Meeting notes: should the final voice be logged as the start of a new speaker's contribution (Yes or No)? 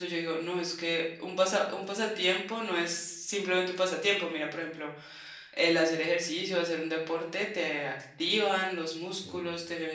No